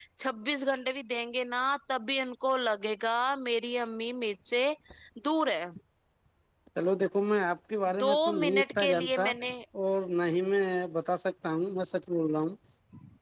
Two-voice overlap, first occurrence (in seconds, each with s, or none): 7.8 s